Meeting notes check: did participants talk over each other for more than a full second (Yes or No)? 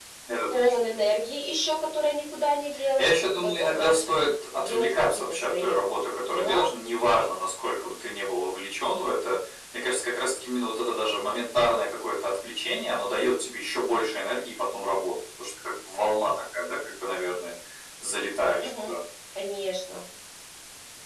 Yes